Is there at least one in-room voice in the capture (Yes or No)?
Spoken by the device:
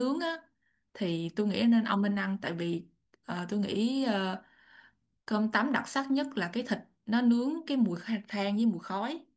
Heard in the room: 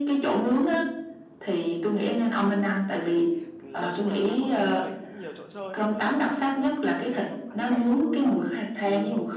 Yes